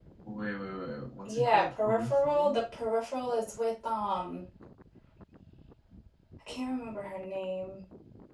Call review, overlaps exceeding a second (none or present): present